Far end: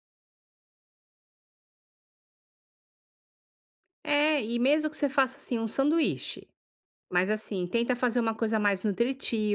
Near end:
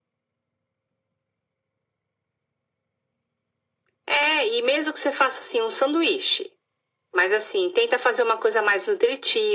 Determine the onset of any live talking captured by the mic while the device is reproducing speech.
none

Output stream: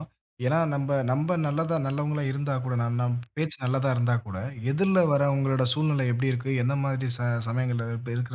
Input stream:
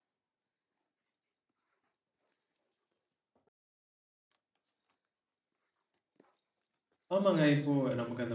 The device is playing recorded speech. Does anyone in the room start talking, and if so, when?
7 s

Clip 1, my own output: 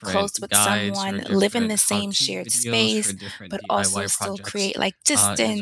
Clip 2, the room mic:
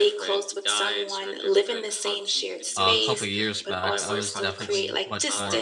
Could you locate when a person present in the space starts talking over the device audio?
3 s

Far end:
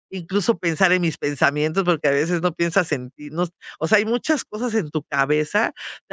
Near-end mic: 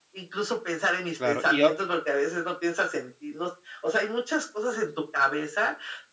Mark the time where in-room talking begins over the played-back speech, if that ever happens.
1 s

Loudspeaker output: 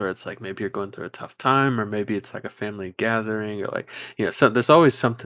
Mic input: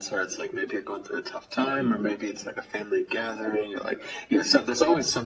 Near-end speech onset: none

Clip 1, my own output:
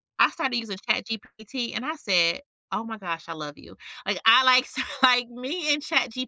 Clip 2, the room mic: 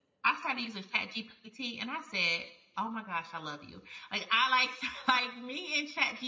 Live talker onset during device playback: none

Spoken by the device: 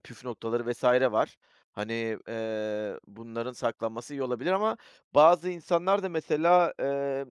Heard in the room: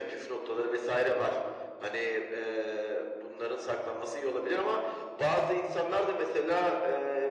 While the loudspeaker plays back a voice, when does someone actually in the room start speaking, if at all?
none

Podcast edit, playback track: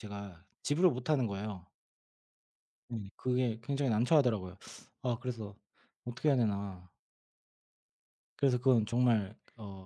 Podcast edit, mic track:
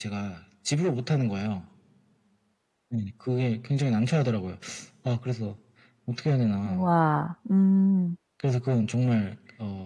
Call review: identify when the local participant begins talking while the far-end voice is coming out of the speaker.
7 s

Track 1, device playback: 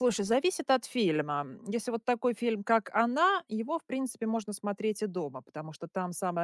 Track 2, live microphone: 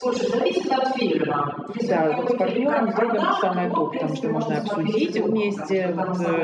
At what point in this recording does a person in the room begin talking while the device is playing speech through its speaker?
2 s

